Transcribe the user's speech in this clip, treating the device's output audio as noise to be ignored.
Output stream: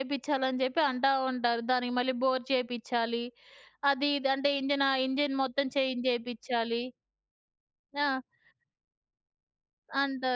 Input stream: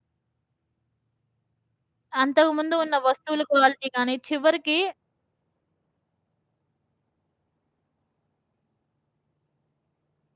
అంతకుముందు ఉన్న వస్తువుల క్వాలిటీ గానీ, చివరికి

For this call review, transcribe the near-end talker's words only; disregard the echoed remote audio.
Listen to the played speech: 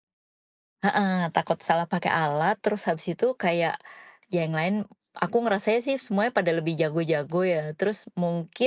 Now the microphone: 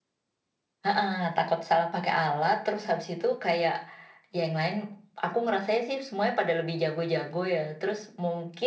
none

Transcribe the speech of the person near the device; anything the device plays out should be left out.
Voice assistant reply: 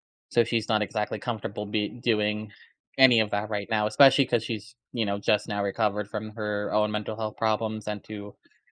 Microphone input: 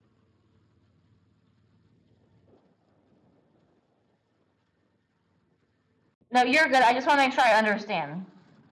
No, you're good, I just wanna make sure I understand.

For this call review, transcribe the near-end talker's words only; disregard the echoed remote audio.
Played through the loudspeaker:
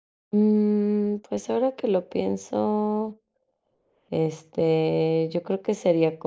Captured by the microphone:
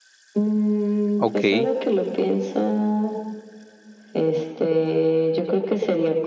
Okey.

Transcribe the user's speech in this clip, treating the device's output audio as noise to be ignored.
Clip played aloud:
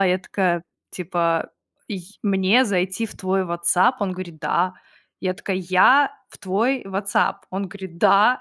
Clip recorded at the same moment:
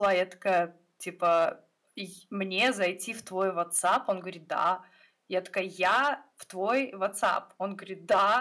none

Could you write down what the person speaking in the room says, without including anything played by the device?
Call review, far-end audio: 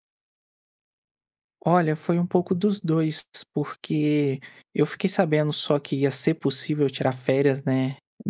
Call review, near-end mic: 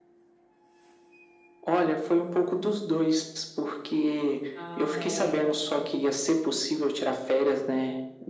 Nossa, é.

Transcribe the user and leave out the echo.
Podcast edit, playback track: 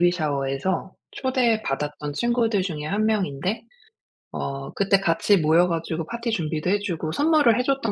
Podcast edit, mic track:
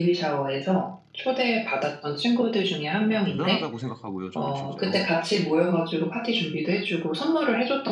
어 대단하다고 생각하고요 저는 실제로.

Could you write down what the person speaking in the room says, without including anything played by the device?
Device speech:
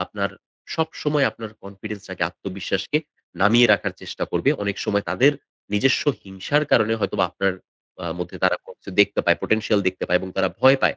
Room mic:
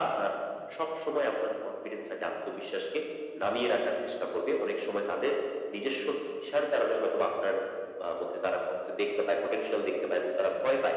none

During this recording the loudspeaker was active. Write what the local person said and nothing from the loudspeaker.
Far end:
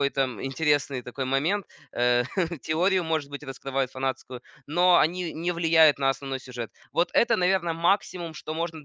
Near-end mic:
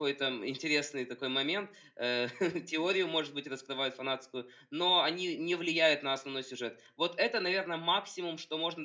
none

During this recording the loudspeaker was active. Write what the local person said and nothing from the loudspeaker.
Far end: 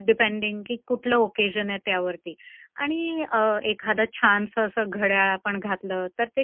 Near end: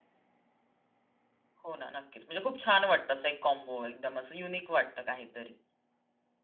हो ना नक्कीच म्हणजे खूप छान वाटतं असं एक कॉम्बो एकदम असं युनिक वाटतं काहीतरी

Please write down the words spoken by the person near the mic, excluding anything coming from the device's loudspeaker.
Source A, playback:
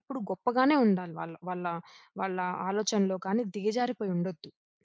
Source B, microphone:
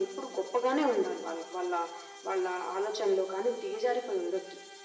none

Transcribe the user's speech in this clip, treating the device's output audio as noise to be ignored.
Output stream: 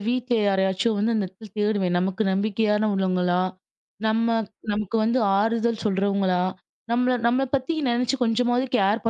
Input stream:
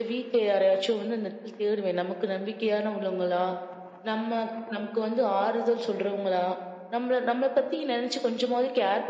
none

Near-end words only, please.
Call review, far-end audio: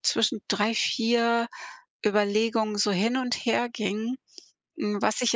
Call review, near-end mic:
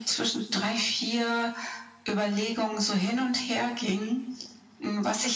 none

